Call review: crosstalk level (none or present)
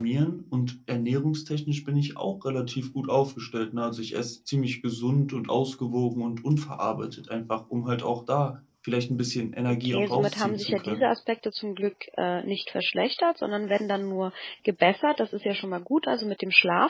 present